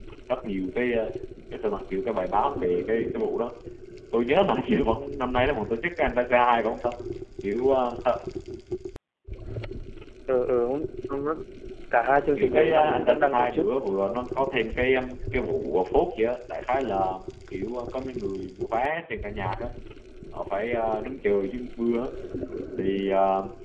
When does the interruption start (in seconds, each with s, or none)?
12.4 s